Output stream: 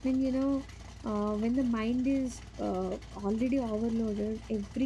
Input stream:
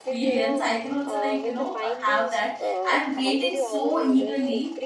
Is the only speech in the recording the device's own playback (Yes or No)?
No